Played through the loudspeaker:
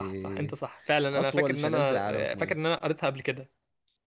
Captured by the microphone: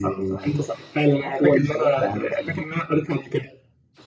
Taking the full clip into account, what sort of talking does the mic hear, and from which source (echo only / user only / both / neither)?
echo only